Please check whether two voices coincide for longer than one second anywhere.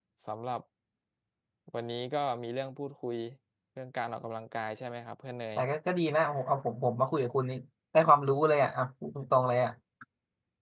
No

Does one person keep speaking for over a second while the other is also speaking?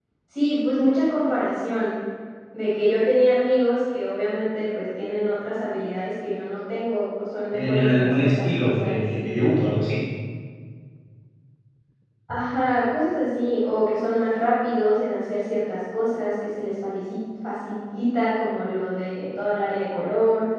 Yes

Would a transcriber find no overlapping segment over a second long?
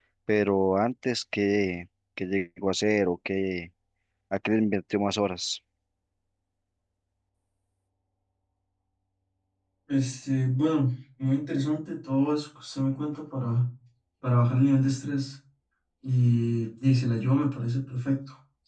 Yes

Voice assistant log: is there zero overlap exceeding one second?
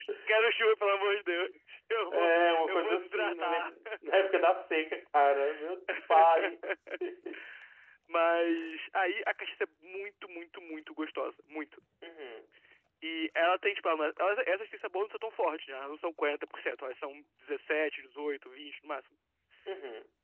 No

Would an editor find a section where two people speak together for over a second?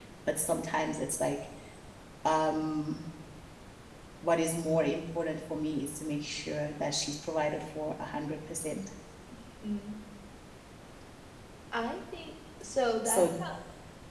No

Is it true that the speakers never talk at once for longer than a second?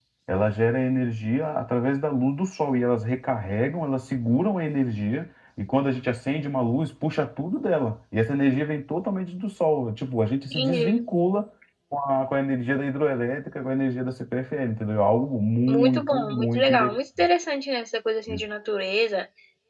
No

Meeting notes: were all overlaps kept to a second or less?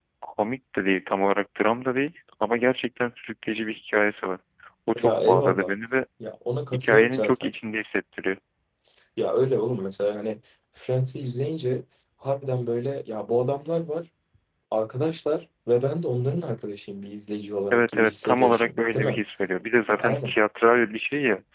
No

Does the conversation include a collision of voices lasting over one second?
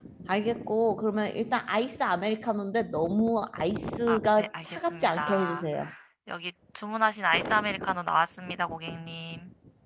Yes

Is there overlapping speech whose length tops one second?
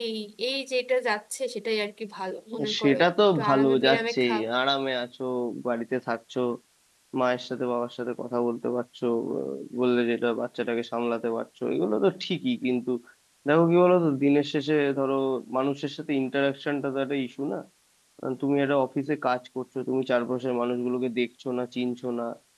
Yes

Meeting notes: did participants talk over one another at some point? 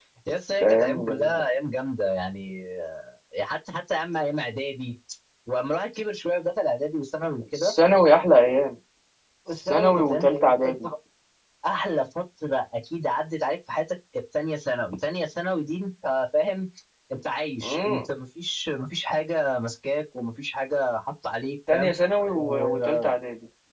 Yes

